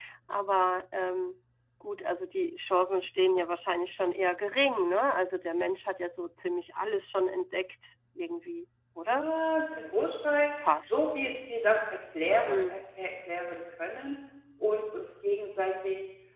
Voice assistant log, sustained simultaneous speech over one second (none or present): none